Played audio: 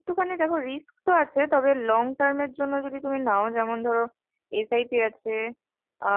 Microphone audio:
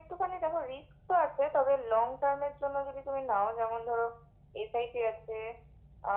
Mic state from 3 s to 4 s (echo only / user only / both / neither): echo only